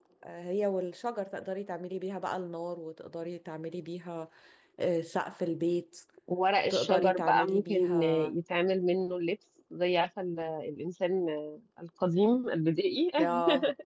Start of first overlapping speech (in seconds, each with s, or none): 6.7 s